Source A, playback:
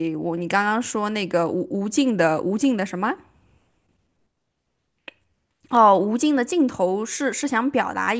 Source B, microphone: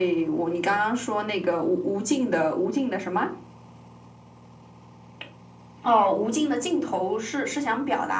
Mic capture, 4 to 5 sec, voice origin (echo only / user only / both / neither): neither